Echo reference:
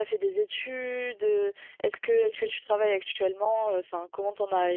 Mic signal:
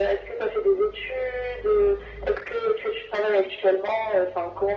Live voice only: none

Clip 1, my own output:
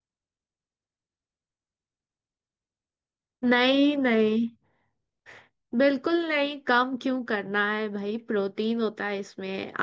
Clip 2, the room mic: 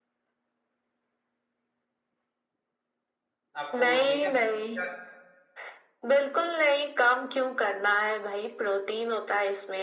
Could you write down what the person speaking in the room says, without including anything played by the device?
आपको मम्मी के हाथ का

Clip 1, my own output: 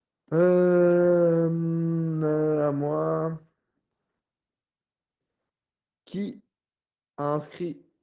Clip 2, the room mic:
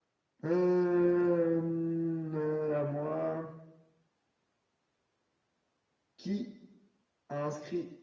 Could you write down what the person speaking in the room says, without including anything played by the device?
none

